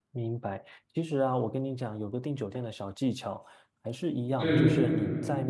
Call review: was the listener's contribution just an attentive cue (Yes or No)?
Yes